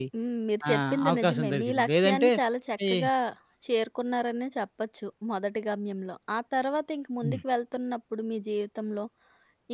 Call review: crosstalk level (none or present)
present